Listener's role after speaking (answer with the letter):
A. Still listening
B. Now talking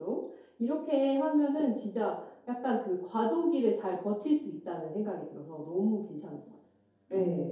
B